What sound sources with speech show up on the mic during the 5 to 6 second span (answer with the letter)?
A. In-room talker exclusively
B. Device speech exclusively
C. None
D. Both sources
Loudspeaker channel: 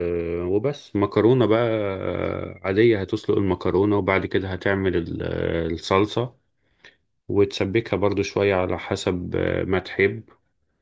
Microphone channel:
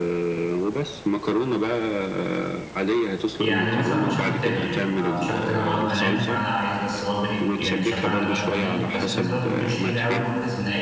D